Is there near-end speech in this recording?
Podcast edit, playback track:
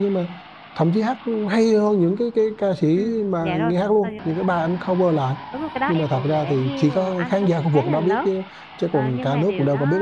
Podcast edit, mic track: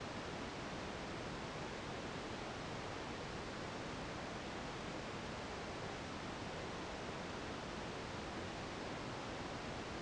No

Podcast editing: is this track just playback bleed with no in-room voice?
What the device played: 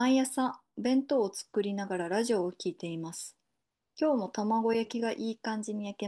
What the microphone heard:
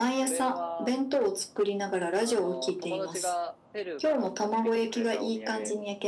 No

